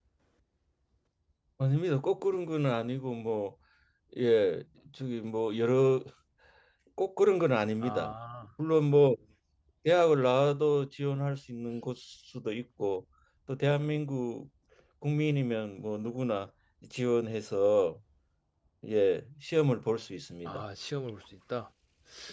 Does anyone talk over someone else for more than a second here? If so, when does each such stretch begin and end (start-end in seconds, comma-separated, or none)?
none